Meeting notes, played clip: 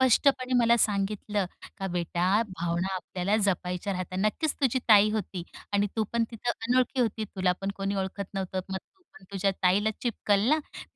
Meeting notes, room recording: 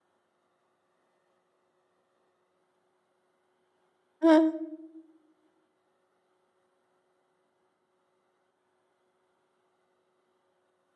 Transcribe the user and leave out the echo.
हां.

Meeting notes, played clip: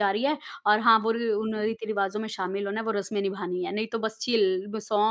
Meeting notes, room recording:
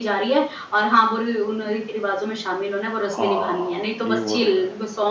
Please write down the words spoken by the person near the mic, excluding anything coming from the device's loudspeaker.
हाँ, ये बहुत देखा है।

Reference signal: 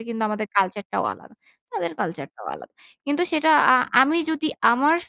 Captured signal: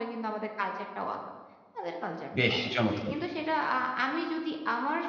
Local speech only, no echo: বেশ চমৎকার!

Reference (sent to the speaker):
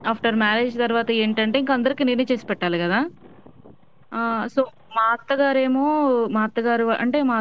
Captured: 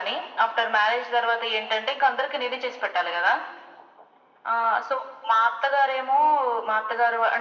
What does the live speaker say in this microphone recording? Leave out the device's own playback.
none

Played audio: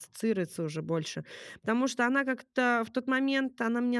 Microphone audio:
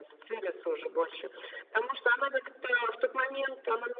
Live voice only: none

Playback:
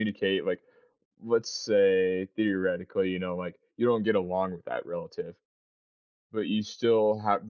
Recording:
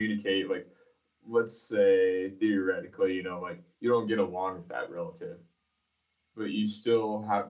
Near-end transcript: none

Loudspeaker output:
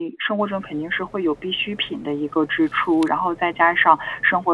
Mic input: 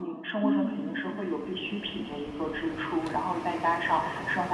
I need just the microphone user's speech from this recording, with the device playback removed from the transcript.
嗯。

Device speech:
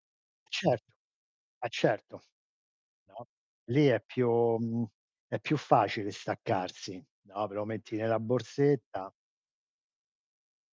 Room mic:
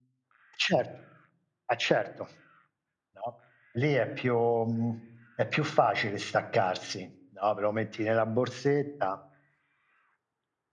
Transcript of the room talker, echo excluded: none

